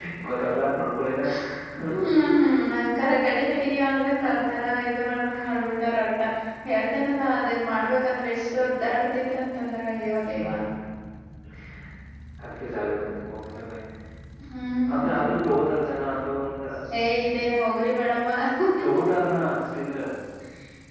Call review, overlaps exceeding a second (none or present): none